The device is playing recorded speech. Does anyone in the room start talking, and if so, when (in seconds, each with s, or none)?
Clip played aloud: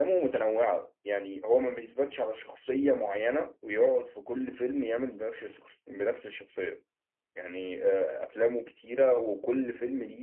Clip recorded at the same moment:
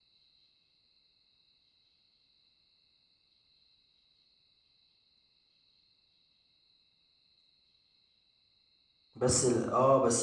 9.2 s